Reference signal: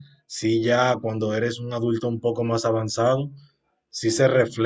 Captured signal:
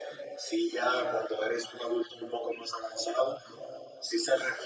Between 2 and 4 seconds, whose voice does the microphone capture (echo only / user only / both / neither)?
echo only